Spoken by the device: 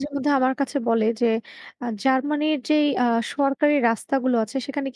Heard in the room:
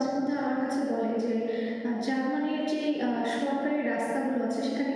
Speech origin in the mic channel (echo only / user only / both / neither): echo only